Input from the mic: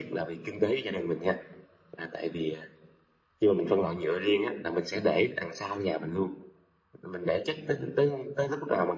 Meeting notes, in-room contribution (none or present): none